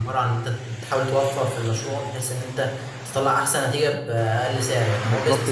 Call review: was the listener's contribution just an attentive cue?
No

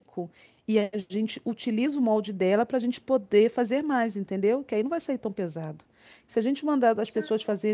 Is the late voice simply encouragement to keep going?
Yes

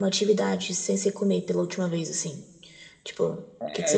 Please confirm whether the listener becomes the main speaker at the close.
Yes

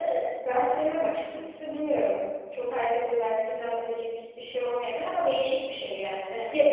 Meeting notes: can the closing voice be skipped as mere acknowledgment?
No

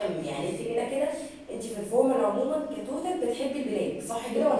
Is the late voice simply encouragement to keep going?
No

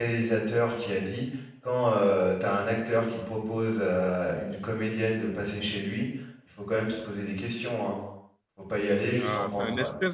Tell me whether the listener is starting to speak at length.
Yes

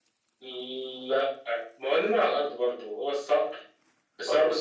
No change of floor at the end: Yes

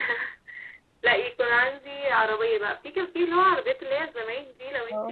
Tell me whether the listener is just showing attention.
Yes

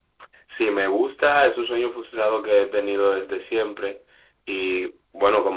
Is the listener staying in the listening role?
Yes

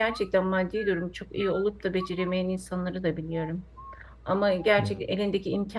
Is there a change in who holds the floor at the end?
No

